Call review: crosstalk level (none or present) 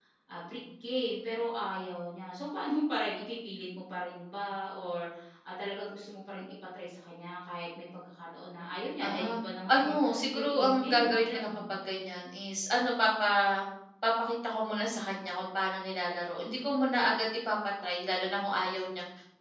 present